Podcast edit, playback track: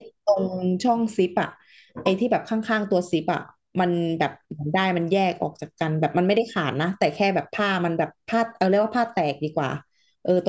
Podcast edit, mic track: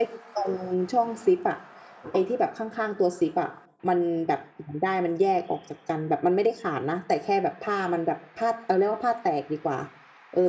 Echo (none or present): present